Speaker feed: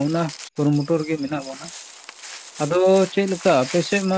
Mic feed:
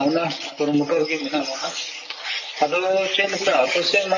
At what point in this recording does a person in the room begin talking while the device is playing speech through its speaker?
none

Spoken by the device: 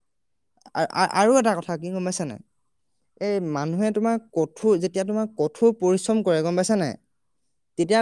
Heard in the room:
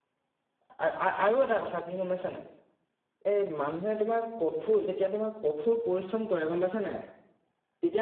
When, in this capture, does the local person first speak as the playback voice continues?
none

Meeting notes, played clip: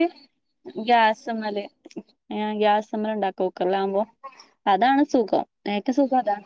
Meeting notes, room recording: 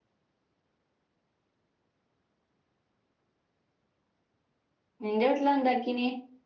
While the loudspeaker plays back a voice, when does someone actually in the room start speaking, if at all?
5 s

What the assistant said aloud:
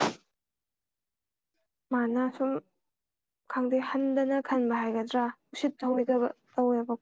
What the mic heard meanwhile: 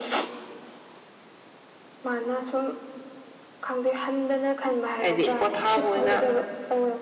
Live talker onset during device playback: 5 s

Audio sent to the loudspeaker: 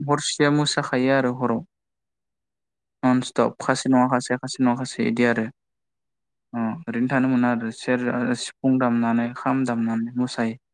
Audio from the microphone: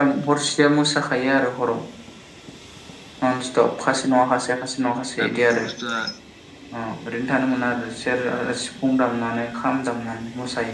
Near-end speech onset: 5 s

